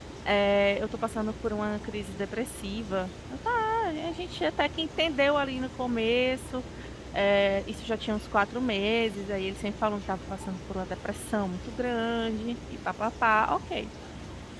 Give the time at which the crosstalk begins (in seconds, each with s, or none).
none